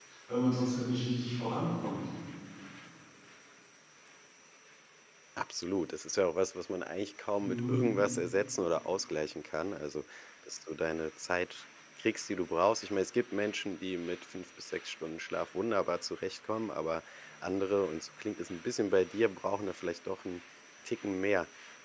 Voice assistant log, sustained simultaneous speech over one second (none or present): none